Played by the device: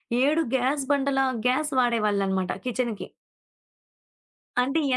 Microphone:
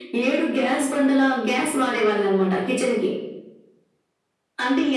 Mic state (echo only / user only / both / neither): echo only